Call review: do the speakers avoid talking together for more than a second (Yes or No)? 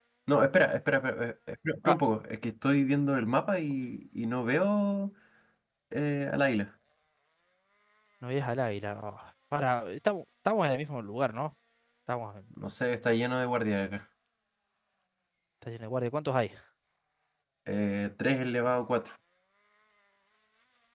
Yes